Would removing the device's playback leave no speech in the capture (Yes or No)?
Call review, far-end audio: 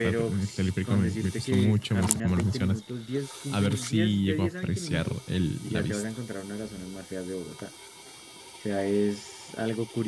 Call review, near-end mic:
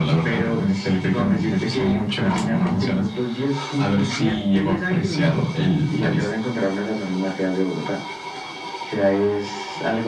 Yes